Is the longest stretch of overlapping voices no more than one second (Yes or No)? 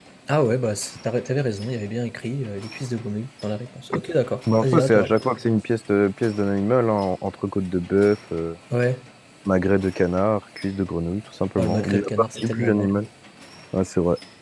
No